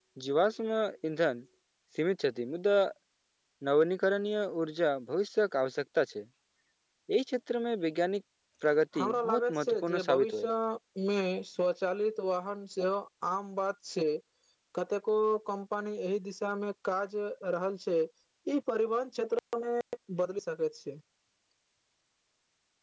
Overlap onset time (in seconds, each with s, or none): 9.0 s